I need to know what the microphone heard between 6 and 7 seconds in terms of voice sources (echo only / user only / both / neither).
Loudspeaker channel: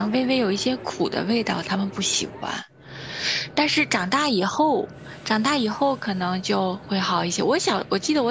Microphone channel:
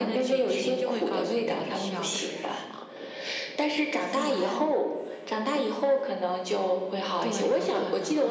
echo only